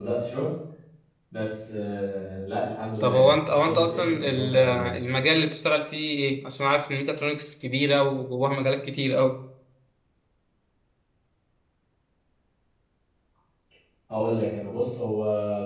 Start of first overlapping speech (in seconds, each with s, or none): 3.0 s